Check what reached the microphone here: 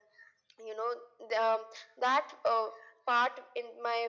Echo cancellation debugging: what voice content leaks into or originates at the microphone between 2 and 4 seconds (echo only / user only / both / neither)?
echo only